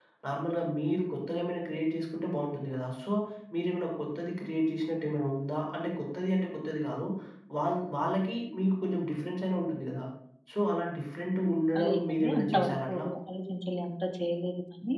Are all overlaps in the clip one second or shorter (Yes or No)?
No